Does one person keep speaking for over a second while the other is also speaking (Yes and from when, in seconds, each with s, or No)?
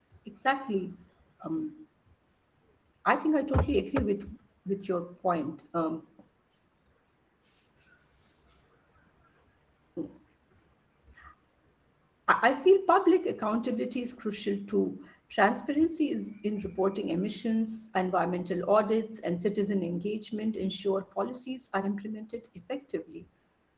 No